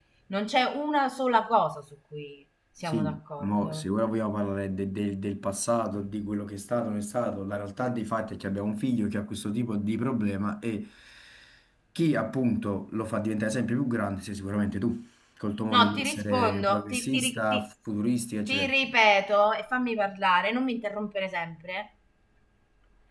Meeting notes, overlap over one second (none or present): present